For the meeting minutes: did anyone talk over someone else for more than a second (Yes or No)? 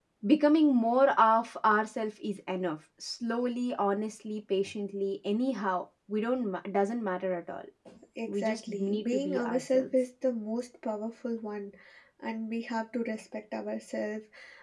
Yes